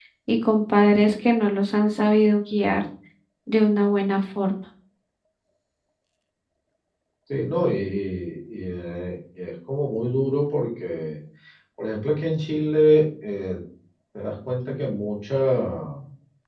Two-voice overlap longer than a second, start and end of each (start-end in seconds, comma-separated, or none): none